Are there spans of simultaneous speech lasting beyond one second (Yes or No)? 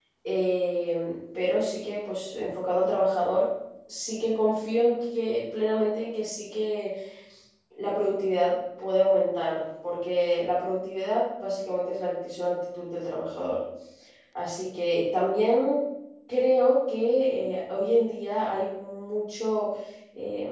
No